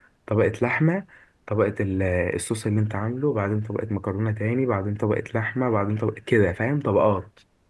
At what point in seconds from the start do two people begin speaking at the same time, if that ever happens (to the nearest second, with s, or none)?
none